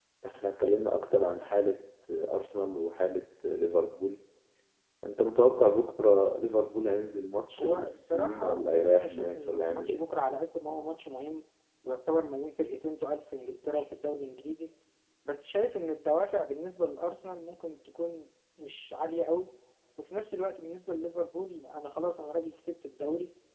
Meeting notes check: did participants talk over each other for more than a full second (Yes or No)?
Yes